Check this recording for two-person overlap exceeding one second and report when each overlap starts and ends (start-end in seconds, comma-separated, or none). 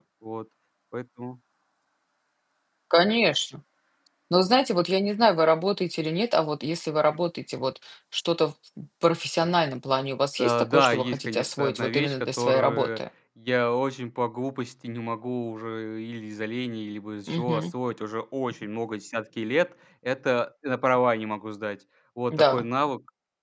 10.4-13.0